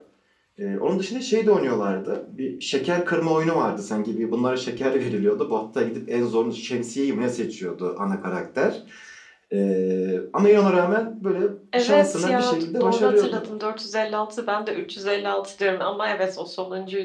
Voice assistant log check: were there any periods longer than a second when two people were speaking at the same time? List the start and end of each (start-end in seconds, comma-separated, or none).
11.8-13.4